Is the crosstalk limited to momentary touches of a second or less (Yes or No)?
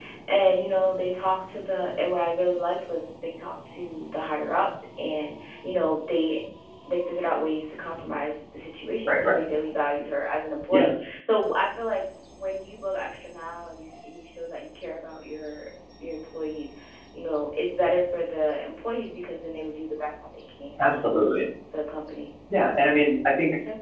Yes